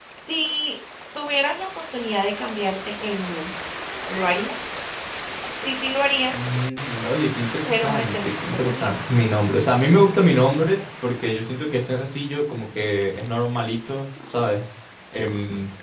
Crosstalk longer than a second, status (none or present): present